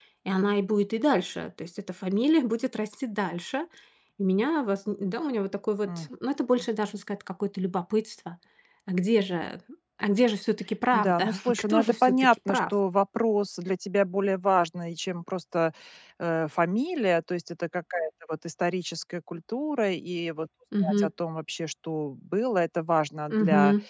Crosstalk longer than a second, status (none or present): present